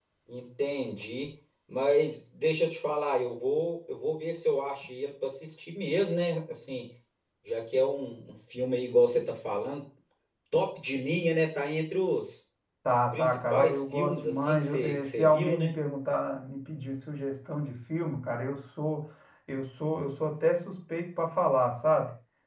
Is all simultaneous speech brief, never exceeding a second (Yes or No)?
No